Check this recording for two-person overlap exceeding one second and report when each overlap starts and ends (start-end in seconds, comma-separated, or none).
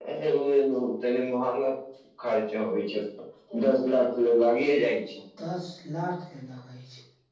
none